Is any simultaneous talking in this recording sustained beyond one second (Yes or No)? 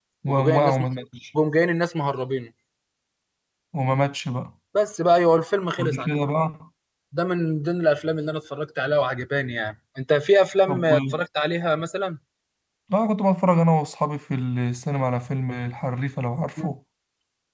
No